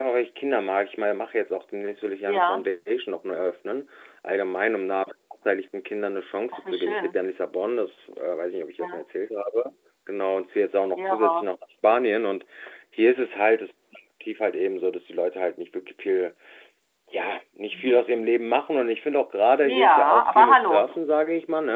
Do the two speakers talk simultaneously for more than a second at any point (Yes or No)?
Yes